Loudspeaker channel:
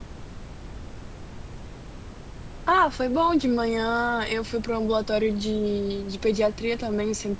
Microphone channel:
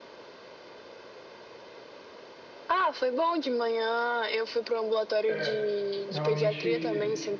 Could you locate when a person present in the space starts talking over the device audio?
5.3 s

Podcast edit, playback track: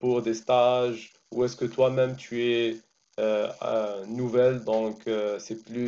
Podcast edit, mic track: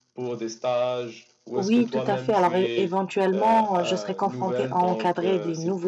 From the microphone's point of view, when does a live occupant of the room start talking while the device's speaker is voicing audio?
1.6 s

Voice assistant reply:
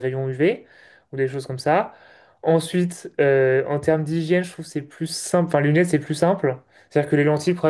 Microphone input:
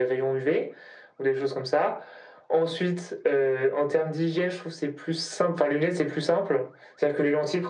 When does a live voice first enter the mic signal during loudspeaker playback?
none

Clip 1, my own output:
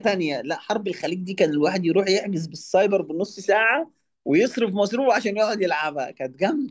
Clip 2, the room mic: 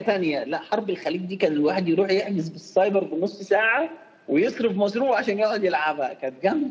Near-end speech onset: none

